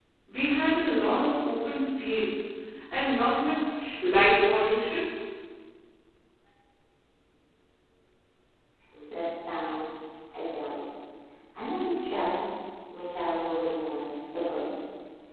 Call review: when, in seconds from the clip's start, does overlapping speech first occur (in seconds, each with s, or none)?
none